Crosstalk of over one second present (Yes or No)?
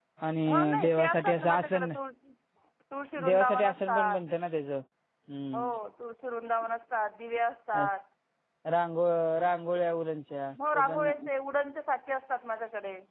Yes